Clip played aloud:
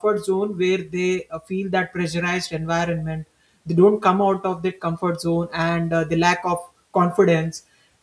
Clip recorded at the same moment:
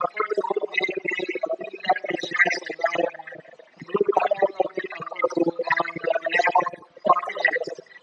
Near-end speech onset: none

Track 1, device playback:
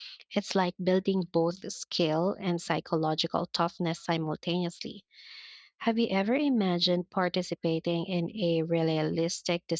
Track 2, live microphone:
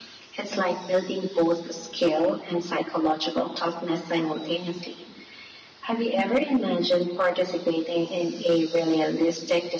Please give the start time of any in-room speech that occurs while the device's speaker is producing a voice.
none

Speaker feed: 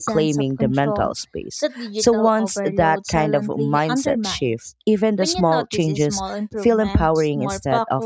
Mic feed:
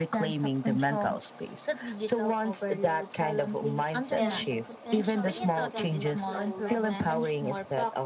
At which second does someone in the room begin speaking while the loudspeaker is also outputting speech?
4.2 s

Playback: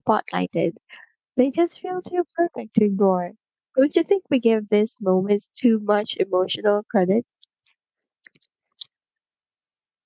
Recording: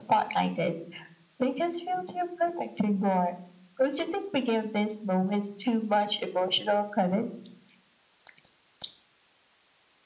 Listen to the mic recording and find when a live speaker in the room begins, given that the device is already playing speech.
none

